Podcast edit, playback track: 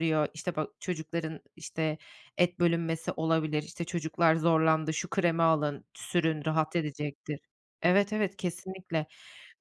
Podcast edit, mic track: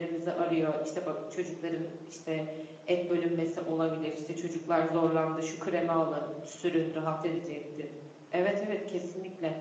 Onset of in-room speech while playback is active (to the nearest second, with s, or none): none